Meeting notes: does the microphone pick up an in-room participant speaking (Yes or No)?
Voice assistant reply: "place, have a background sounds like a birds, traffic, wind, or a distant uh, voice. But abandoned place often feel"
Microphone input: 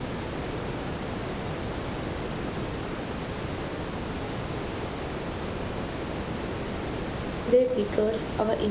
Yes